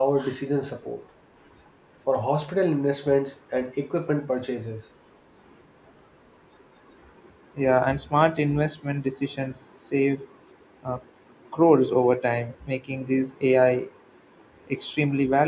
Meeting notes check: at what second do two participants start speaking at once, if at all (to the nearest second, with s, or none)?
none